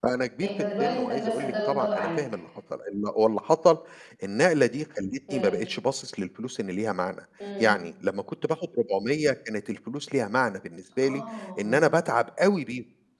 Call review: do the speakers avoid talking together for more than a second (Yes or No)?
No